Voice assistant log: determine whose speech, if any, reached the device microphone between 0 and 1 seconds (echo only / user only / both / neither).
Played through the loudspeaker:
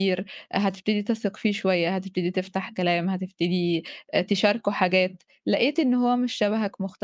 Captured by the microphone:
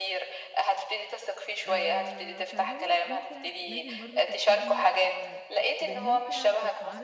echo only